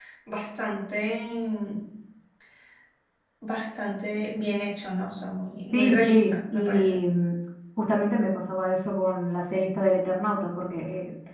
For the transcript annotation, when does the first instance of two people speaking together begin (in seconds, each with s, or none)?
5.7 s